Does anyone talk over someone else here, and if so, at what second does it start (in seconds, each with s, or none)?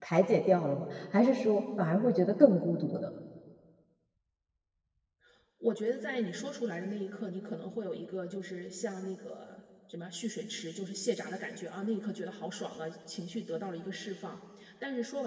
none